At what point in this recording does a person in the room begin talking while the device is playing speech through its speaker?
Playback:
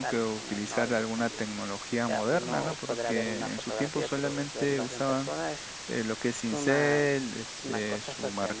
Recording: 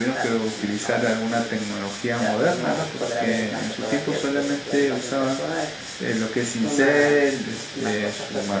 none

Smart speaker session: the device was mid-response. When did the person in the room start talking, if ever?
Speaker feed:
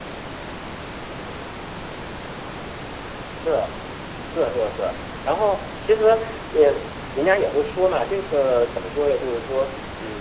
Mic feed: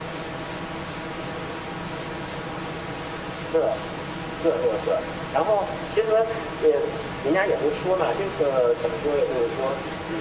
none

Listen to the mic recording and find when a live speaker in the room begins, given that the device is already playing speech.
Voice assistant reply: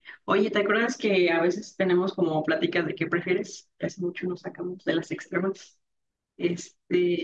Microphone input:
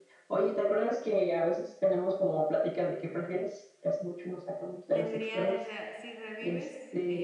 4.9 s

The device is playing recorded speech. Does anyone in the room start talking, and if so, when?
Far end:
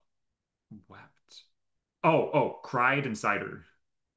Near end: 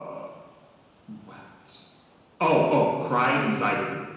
none

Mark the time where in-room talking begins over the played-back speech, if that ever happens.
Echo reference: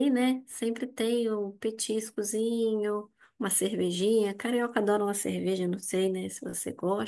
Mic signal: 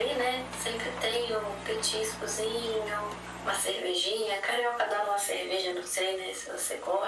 none

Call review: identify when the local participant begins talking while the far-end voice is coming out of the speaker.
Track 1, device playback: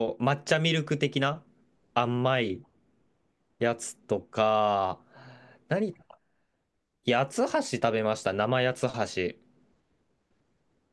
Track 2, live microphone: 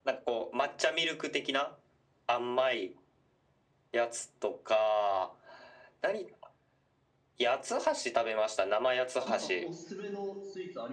9.2 s

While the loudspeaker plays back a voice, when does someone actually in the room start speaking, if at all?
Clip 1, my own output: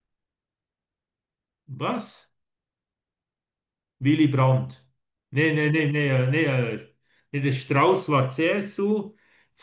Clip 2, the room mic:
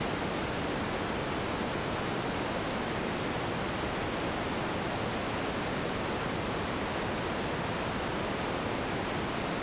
none

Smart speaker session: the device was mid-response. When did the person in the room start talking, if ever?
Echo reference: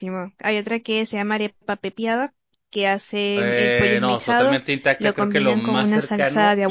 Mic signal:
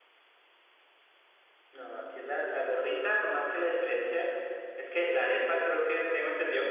1.7 s

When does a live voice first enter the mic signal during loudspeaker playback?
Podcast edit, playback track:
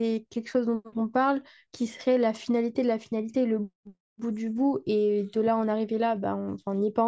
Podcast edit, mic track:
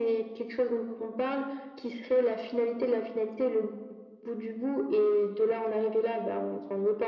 none

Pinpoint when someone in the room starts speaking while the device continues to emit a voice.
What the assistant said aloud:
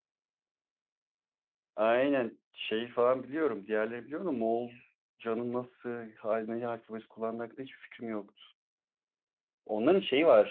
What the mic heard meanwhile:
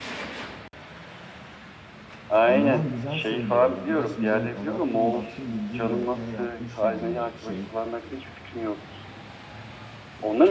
2.4 s

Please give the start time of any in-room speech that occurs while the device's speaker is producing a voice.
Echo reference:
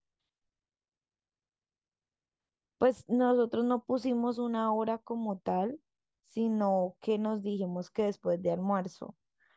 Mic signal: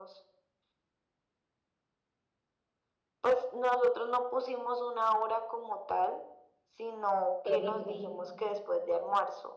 7.4 s

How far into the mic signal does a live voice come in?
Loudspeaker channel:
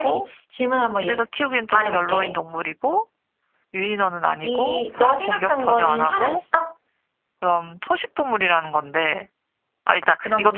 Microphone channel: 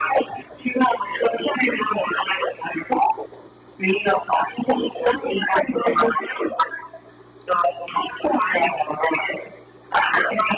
none

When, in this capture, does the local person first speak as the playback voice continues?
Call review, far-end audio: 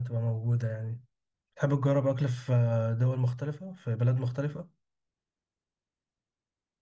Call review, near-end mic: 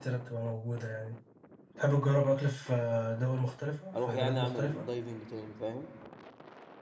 4.0 s

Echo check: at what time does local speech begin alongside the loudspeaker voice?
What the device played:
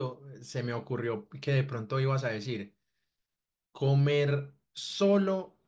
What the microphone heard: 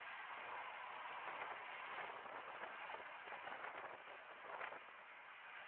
none

